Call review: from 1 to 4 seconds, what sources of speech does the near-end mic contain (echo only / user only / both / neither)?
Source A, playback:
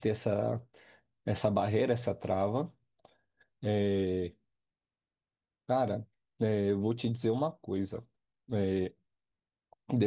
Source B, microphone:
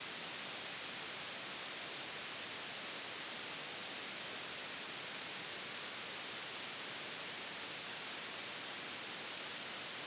neither